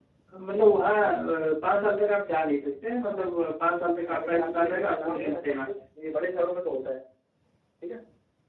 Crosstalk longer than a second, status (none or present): present